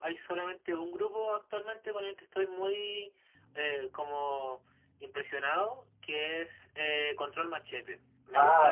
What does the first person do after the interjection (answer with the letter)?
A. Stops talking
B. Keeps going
B